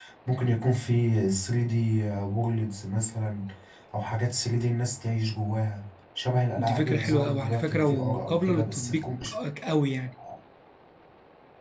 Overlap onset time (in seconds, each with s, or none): 6.6 s